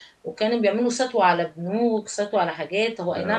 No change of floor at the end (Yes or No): Yes